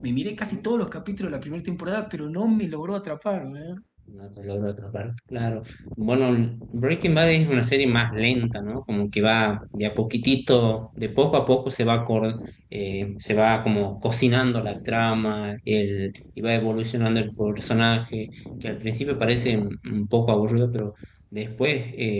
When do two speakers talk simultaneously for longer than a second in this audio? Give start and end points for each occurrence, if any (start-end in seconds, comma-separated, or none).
none